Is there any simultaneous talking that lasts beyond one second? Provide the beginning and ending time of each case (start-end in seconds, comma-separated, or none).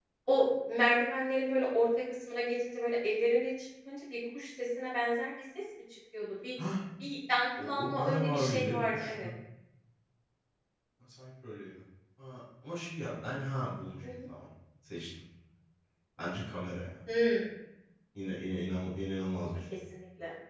7.6-9.3